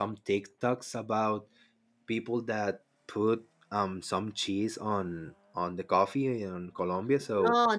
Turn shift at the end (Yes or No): Yes